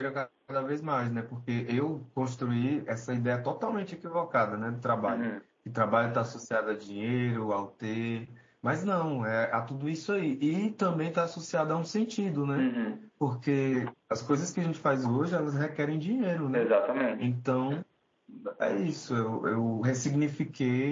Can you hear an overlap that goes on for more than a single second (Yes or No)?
No